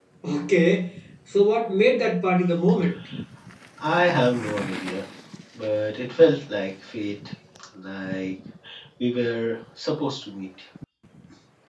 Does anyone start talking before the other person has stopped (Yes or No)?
No